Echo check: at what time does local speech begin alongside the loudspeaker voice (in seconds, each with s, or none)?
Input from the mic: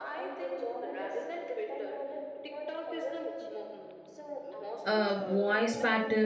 4.8 s